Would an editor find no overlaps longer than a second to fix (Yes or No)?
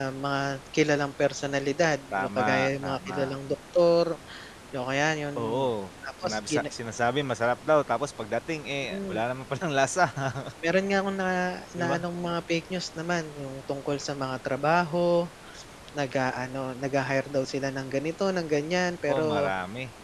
No